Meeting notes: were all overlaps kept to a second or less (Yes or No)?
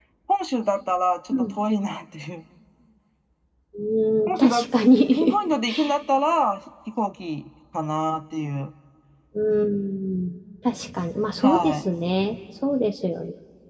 Yes